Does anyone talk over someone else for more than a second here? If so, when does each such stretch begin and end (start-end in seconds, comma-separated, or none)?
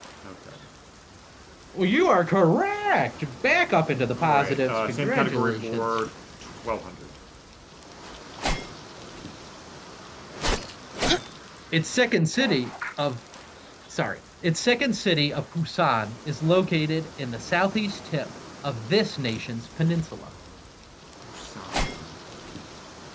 4.1-5.9